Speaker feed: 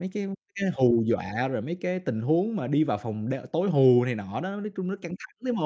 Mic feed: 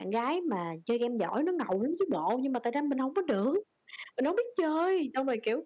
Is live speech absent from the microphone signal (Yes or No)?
No